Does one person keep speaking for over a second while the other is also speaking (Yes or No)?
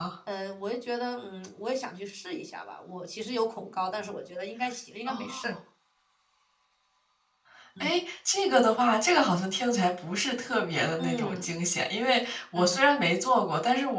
No